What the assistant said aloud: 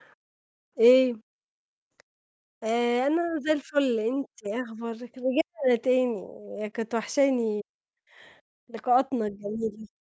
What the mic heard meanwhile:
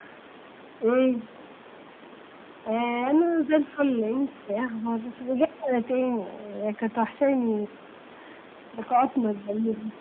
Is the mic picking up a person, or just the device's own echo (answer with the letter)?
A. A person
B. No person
B